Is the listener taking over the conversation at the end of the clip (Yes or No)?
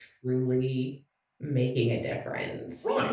Yes